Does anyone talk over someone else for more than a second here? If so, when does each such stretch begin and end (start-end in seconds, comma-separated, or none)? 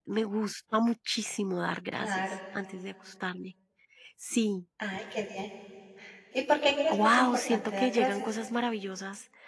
6.9-8.3